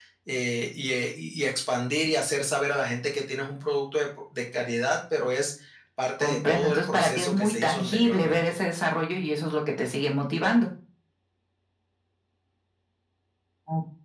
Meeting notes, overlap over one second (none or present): present